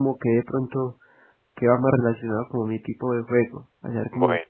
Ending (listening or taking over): taking over